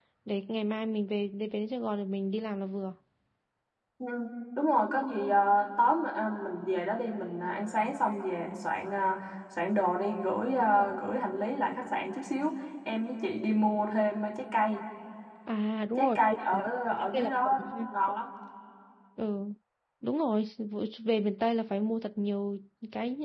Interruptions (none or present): present